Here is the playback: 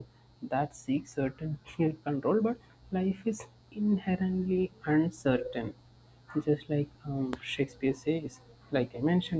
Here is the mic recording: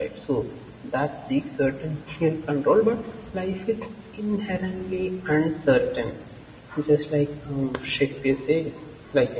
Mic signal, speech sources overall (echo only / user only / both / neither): echo only